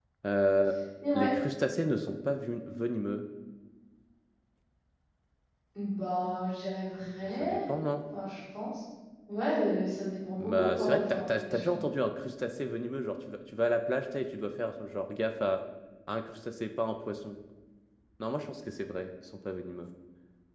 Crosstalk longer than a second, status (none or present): present